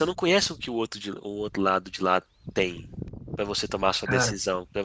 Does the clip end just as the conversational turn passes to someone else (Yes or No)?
No